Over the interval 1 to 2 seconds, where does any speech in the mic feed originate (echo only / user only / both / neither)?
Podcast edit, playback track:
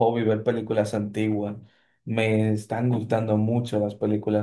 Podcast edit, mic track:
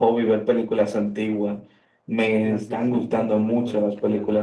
echo only